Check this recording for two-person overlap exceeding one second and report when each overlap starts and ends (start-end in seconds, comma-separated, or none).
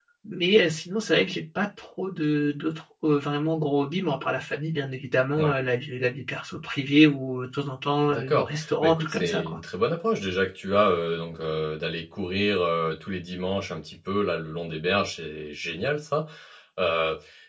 8.1-9.6